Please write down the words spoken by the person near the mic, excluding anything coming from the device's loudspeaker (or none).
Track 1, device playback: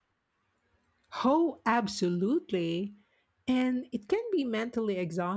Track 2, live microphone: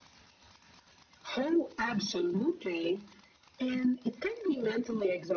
none